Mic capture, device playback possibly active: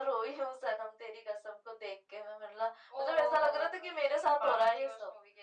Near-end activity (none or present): none